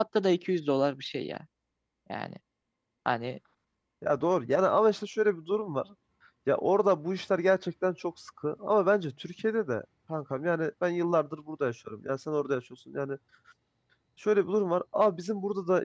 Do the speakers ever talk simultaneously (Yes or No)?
No